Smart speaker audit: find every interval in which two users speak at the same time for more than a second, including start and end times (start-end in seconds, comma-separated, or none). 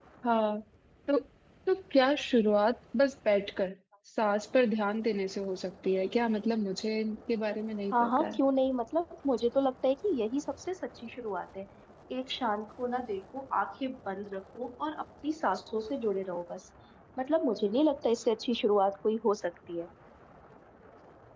none